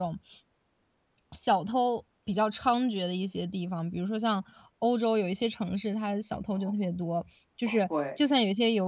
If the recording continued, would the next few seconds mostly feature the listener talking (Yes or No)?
No